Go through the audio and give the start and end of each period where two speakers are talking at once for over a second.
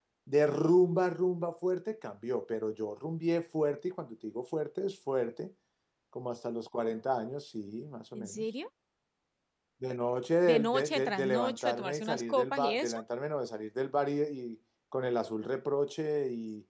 10.4-13.0

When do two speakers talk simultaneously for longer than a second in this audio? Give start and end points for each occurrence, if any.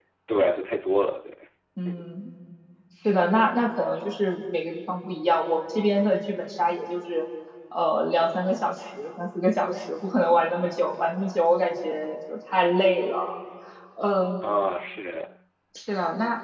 none

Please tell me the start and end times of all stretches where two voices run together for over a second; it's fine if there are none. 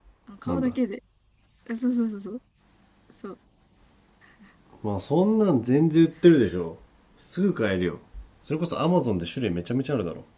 none

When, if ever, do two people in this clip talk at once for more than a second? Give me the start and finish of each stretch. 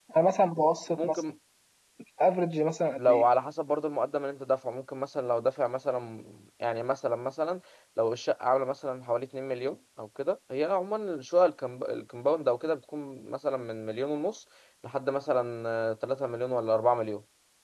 none

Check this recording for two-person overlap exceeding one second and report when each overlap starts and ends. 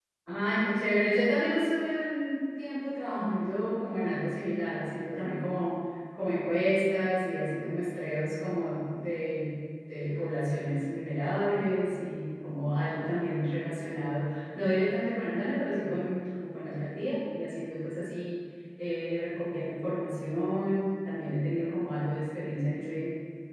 none

